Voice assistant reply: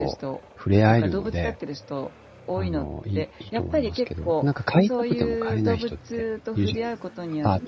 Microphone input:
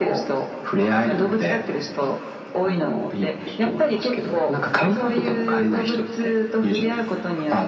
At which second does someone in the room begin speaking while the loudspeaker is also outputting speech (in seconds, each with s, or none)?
none